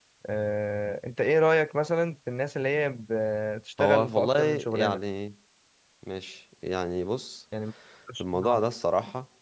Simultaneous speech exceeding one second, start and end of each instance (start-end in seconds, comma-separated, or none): 3.8-5.0